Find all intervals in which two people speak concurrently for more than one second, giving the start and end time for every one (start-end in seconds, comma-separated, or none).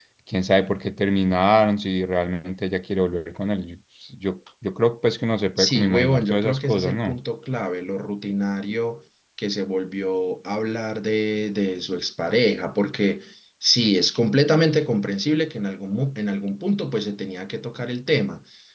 5.6-7.2